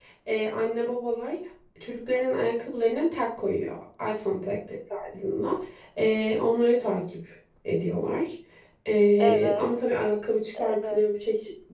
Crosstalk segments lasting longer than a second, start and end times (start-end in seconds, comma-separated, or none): none